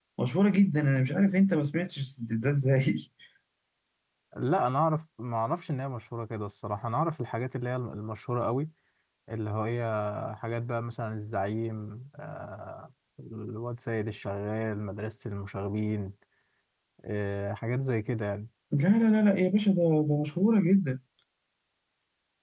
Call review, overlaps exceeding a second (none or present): none